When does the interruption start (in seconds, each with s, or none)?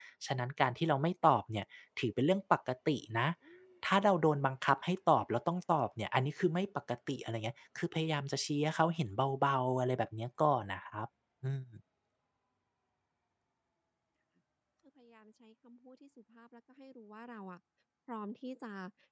none